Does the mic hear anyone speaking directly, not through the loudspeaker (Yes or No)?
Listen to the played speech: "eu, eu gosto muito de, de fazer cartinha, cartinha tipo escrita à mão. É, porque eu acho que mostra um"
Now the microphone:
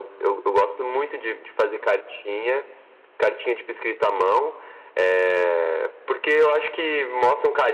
No